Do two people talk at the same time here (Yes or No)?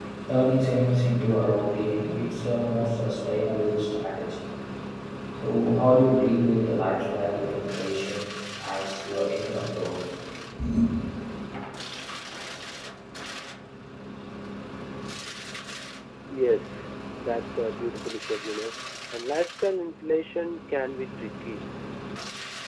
No